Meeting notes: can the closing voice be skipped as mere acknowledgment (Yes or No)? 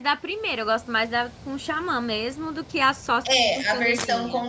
No